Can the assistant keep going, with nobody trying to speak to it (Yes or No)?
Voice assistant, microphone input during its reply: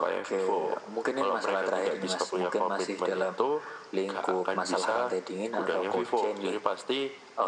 Yes